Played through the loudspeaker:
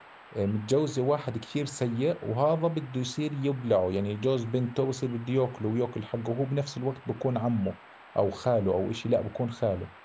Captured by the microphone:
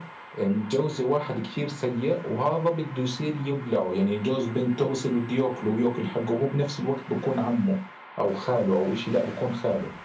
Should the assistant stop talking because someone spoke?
No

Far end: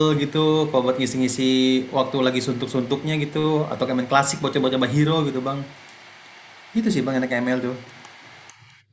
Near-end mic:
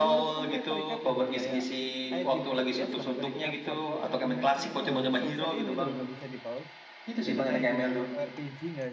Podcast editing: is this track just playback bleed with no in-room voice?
No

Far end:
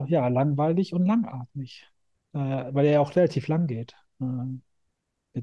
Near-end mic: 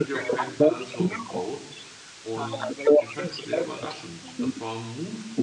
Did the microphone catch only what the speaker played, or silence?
No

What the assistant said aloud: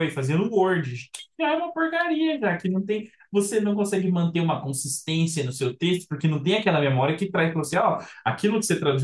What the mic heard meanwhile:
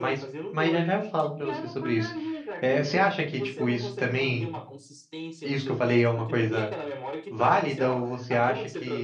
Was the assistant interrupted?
Yes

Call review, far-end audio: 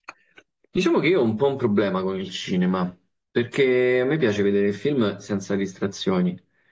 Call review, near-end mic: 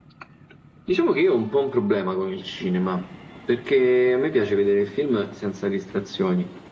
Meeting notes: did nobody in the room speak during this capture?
Yes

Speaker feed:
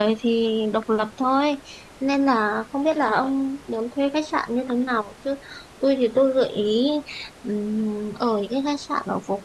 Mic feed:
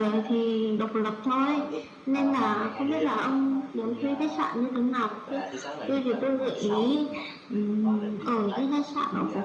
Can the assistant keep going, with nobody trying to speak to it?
No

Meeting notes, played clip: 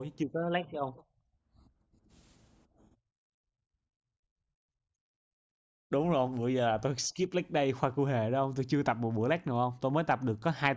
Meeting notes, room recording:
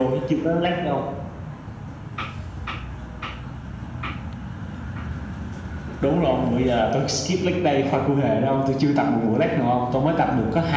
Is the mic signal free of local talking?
Yes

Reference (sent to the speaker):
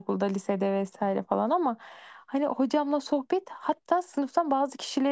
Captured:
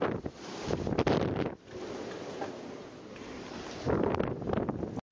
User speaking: No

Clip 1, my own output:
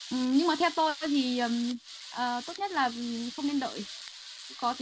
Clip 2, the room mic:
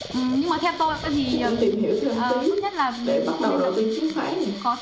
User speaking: Yes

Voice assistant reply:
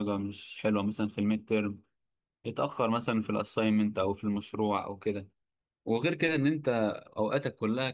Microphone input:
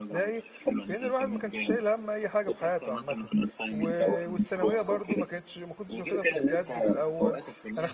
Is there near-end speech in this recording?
Yes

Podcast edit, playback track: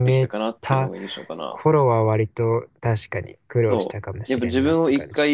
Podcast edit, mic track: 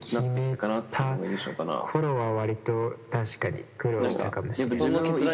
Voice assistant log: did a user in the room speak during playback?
Yes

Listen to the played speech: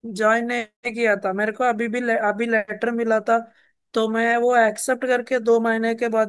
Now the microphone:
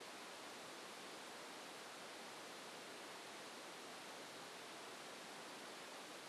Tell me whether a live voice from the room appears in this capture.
No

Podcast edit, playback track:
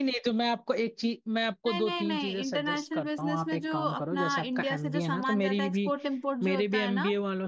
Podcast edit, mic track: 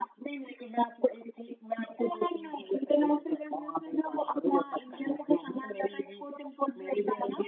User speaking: No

